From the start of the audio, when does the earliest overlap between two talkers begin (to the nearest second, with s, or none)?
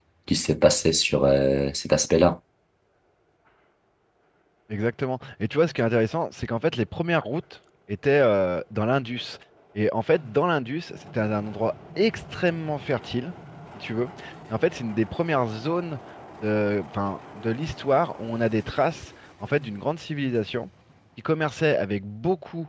none